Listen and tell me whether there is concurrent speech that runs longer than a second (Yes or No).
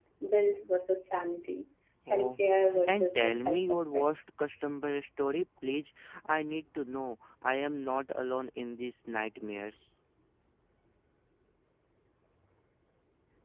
Yes